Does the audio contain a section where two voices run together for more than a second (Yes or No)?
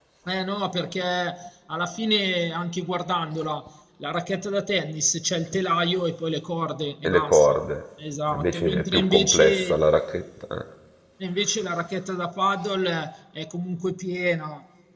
Yes